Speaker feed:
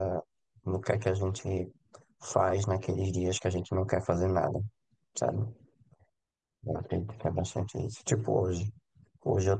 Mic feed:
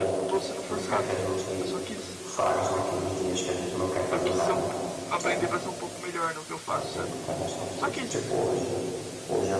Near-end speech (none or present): present